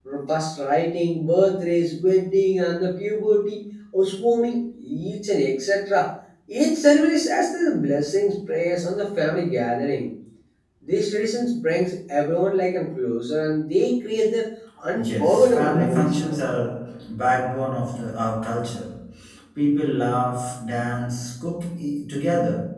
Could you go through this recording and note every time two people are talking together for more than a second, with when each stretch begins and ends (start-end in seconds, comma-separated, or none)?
14.9-16.4